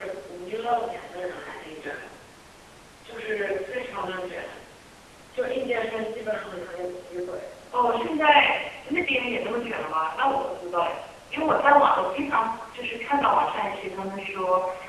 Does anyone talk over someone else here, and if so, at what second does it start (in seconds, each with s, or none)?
none